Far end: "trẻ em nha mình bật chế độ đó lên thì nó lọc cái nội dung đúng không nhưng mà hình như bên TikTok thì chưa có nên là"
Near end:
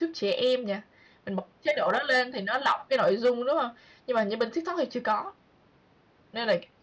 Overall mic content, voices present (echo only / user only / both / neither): echo only